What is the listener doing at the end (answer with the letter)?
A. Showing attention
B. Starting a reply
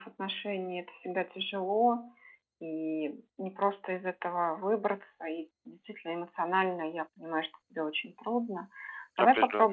A